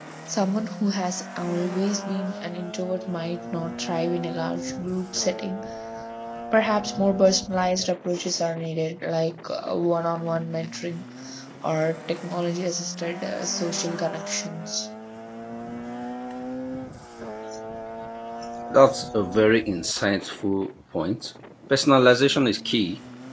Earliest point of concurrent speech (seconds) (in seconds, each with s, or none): none